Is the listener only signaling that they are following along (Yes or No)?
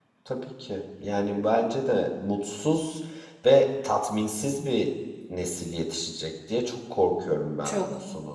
No